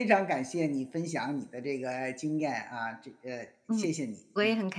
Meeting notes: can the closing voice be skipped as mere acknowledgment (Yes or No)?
No